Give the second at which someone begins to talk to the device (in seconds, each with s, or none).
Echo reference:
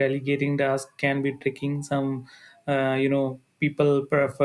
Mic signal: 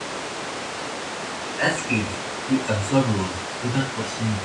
1.6 s